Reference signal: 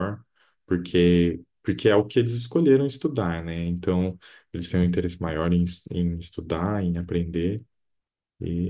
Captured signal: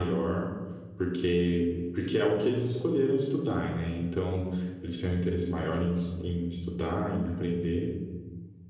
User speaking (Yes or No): No